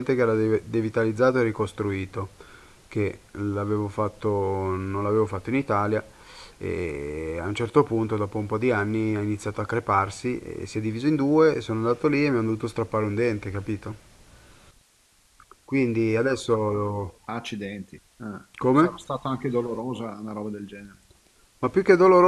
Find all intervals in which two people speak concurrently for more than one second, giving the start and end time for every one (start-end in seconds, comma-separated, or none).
none